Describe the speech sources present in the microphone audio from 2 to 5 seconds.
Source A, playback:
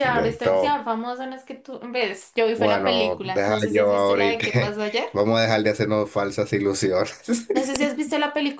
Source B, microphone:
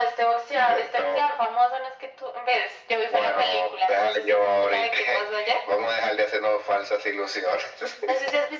echo only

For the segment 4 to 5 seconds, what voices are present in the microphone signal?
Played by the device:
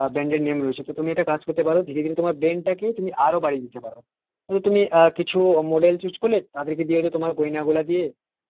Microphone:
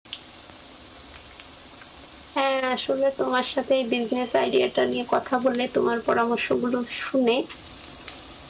user only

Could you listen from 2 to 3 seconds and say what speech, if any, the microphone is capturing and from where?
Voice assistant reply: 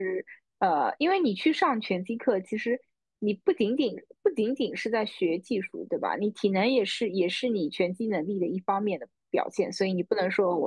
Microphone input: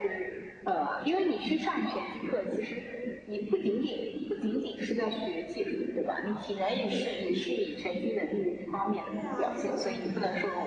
echo only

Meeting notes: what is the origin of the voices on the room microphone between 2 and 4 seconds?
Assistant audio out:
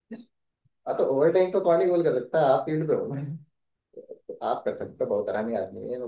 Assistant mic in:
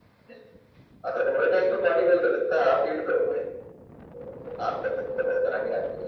echo only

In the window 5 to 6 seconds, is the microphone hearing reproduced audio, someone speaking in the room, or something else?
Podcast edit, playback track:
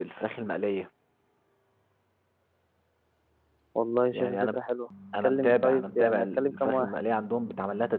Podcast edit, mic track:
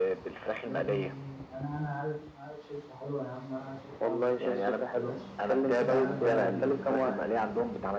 both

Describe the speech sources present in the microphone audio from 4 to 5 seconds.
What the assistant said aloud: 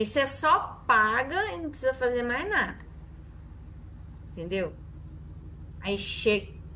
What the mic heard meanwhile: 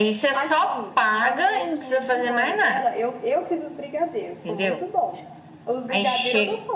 both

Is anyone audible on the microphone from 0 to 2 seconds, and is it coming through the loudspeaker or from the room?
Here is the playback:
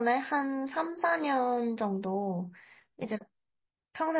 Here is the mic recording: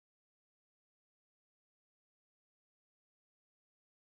neither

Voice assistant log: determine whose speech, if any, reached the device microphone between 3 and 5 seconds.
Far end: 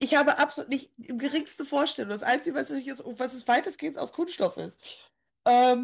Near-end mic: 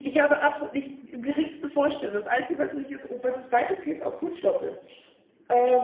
echo only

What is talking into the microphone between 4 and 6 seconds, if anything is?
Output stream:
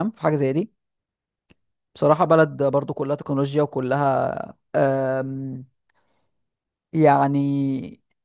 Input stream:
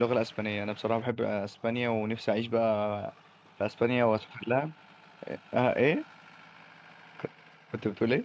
user only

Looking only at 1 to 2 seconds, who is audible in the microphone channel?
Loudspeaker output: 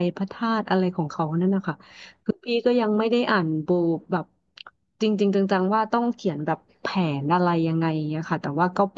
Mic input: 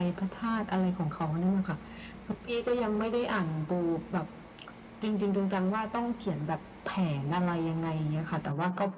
echo only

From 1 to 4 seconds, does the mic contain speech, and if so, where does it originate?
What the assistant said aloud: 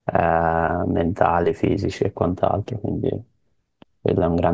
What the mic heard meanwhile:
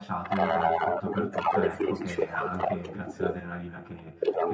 both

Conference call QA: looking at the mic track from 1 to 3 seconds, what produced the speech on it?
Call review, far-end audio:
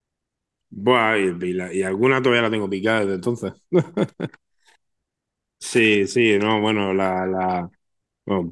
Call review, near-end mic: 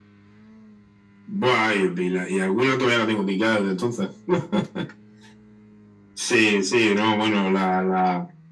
echo only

